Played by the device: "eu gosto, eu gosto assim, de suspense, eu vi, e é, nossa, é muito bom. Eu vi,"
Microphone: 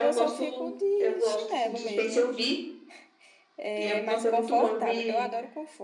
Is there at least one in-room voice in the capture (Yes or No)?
Yes